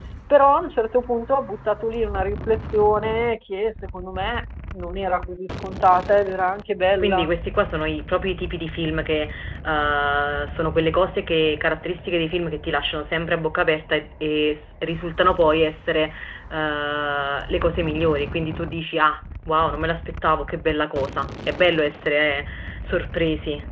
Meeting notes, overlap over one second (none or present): none